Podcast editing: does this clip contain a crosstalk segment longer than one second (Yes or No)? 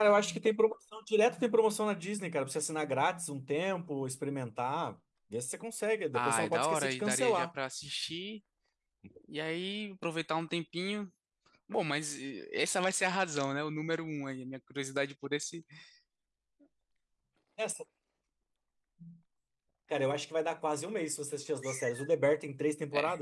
Yes